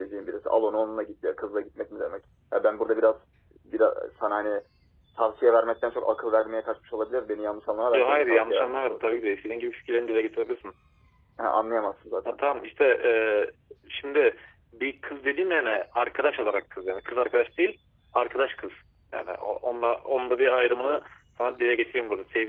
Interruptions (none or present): present